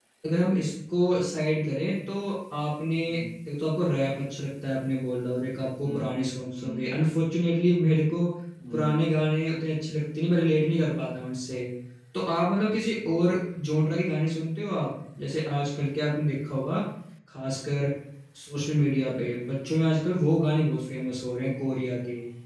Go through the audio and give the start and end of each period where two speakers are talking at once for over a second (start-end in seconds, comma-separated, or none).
none